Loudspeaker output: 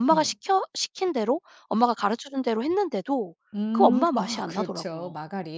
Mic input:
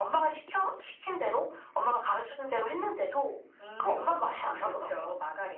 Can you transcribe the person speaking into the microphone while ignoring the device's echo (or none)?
none